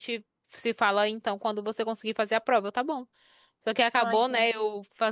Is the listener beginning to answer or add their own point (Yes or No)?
No